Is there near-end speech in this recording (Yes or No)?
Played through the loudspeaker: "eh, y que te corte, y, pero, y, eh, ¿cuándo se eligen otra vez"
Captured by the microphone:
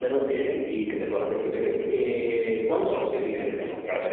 Yes